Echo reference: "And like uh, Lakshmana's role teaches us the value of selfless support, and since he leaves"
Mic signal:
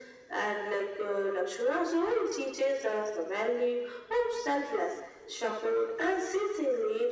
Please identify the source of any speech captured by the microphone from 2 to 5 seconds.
echo only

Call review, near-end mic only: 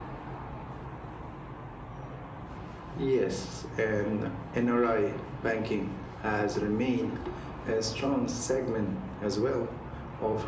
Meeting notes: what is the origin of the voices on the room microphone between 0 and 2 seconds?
neither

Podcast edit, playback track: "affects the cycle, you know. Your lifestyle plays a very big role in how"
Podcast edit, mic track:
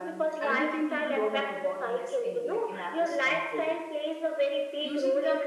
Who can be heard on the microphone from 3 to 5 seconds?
both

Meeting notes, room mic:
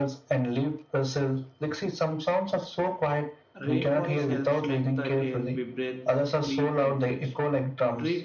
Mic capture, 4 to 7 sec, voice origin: both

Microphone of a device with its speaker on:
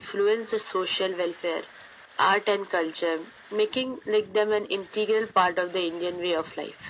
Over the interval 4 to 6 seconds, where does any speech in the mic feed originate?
echo only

